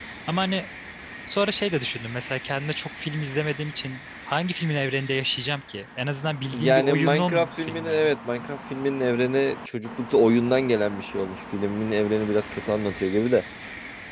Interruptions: present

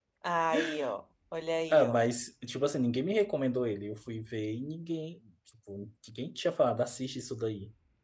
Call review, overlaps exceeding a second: none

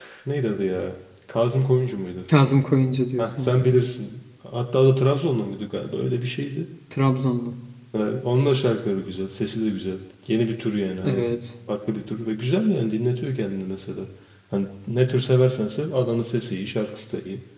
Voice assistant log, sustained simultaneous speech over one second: none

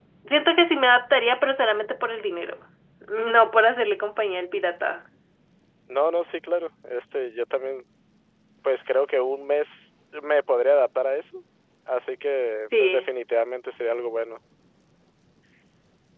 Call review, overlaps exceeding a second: none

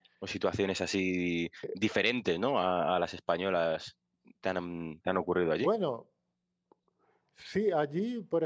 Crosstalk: none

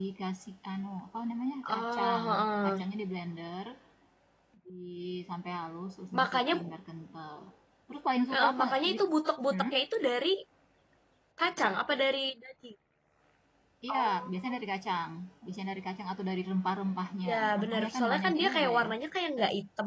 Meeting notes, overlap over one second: present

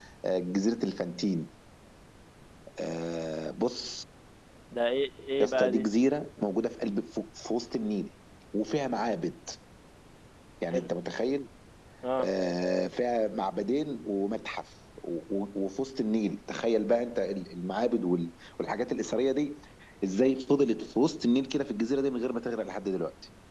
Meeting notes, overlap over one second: none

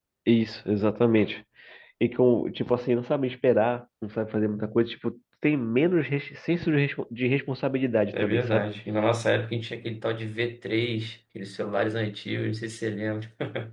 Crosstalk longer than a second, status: none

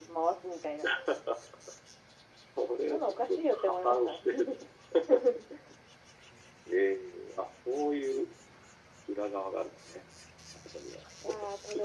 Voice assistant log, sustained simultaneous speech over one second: present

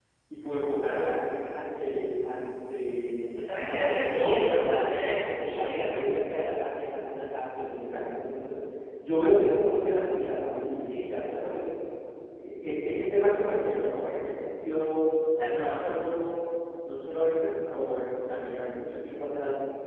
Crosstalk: present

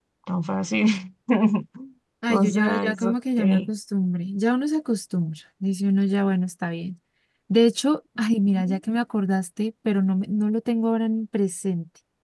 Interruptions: present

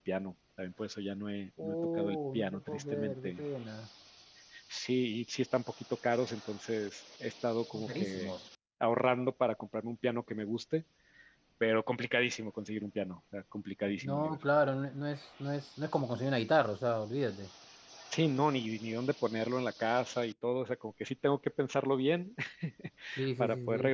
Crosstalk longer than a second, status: present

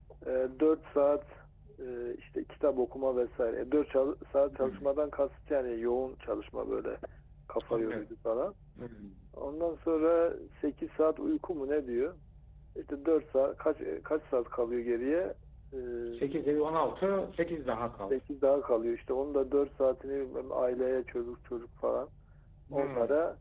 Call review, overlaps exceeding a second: none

